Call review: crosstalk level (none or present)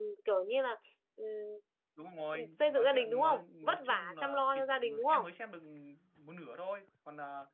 present